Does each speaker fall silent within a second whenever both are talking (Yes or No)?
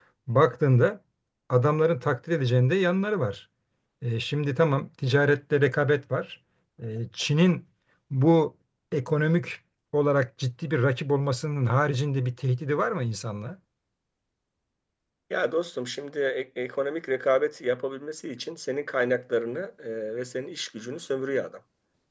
Yes